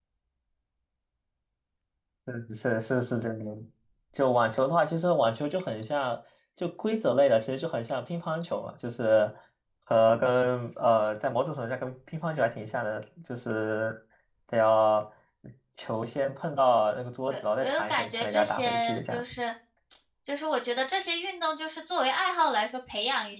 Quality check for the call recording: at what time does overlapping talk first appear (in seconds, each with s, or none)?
17.3 s